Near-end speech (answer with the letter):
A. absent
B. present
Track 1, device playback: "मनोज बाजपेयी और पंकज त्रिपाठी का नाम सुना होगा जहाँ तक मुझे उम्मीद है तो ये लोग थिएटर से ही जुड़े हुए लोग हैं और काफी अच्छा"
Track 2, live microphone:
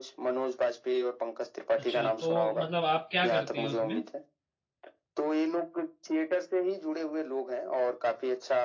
B